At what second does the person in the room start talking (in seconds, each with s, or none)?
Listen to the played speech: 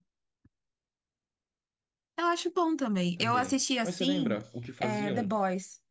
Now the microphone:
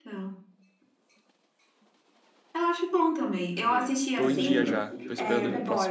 4.1 s